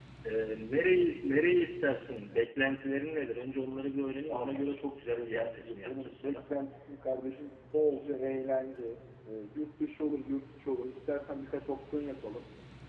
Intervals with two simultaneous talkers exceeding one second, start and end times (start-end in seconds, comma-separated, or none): 5.1-6.5